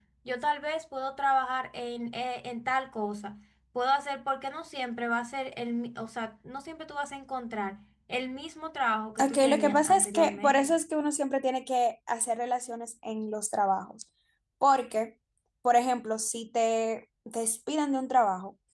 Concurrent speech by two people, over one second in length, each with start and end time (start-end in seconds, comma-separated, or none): 9.2-10.7